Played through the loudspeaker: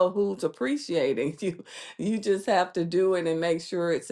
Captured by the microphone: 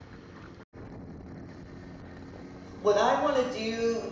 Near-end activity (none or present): present